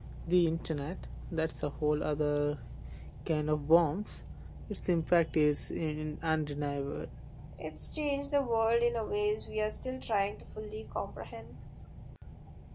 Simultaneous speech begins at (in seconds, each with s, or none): none